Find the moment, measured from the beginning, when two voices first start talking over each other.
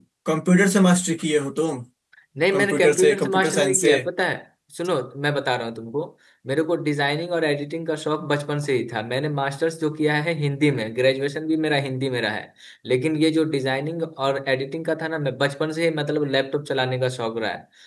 2.5 s

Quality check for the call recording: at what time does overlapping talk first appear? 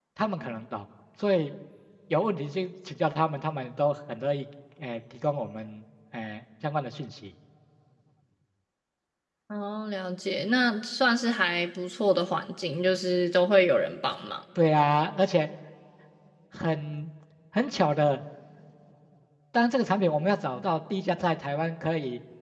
none

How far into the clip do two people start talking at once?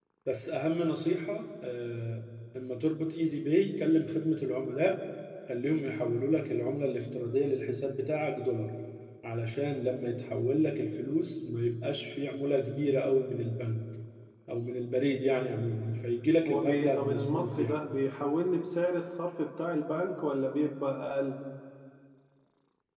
16.4 s

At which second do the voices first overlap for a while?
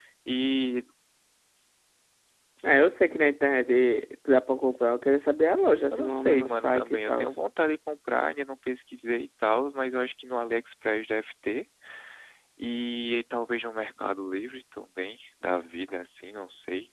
5.9 s

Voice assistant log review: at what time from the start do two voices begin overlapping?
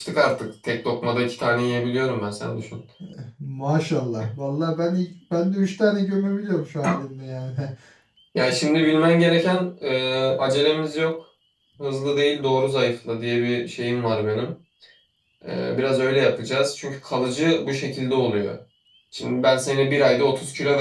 none

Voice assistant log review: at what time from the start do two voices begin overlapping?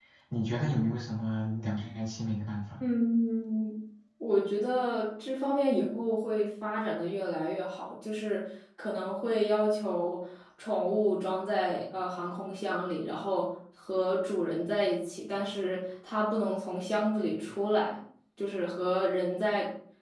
none

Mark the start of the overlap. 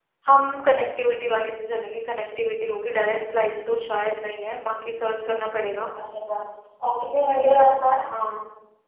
none

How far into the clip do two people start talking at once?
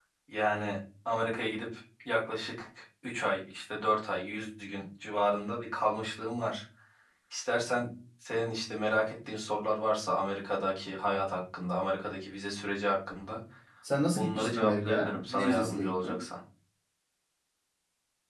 14.2 s

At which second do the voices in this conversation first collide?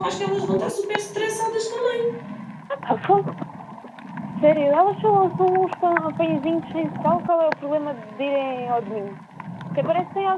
none

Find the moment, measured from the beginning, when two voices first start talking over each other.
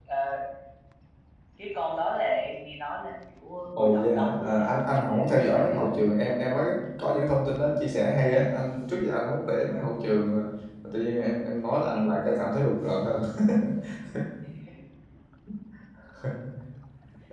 3.8 s

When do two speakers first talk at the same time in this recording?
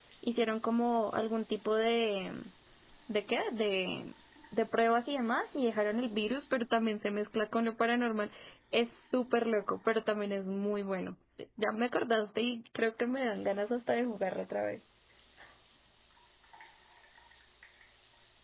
none

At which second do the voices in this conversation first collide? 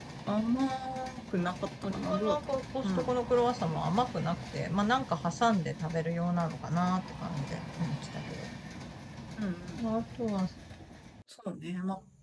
1.8 s

